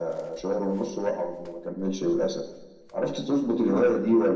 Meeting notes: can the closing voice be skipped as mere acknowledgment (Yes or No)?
Yes